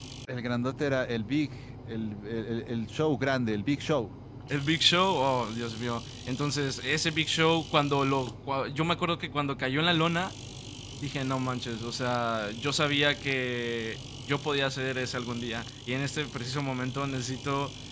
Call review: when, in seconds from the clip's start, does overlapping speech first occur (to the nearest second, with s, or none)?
none